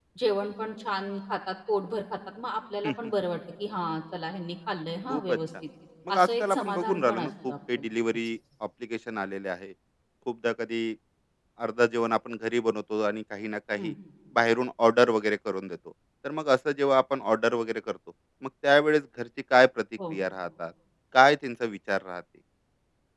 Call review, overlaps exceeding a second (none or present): present